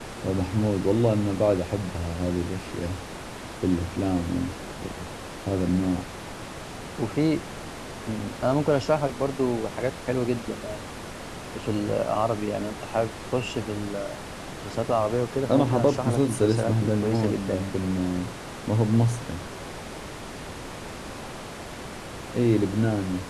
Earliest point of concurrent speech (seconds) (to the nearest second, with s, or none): 15 s